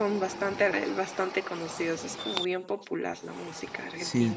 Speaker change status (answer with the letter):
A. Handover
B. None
A